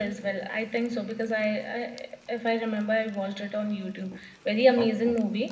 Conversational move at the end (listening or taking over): listening